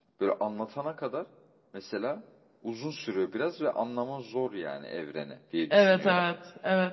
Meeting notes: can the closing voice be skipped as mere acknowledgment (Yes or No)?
No